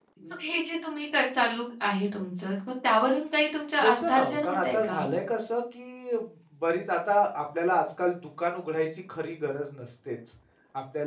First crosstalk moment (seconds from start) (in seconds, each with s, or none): 3.8 s